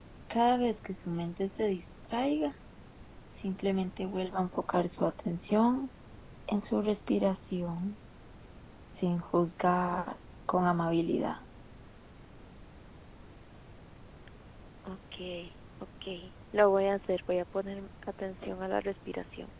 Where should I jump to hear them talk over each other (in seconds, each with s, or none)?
none